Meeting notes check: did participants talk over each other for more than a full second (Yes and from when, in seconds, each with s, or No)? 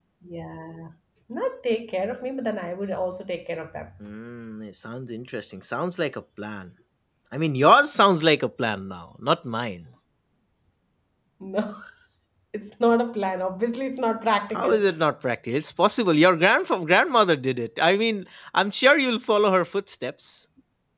No